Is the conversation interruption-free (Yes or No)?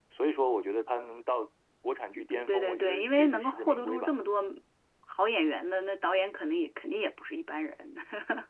No